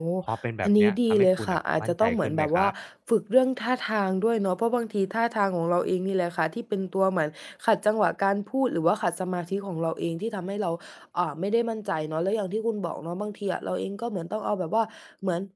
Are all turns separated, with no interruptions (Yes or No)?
No